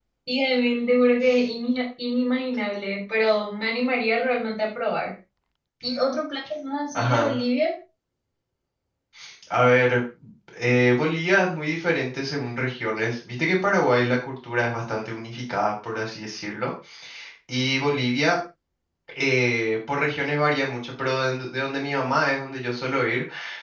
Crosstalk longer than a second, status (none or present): none